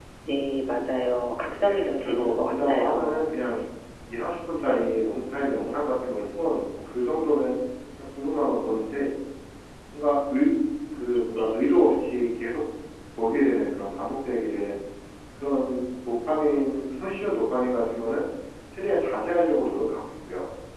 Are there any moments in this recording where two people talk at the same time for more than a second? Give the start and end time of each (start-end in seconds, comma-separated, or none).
1.6-3.3